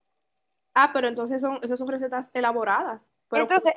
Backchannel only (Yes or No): No